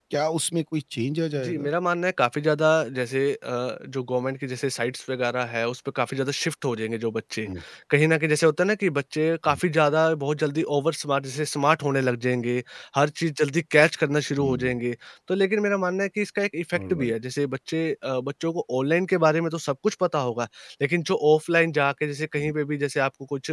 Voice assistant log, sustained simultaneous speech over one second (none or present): none